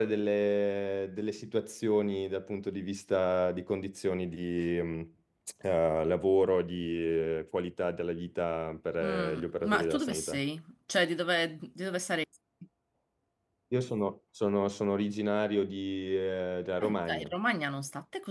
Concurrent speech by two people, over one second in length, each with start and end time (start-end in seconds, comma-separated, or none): 9.0-10.4